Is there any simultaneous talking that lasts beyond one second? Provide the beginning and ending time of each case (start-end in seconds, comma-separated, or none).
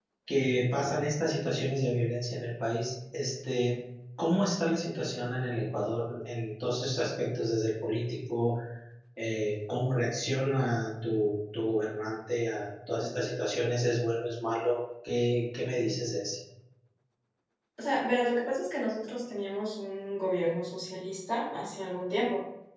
none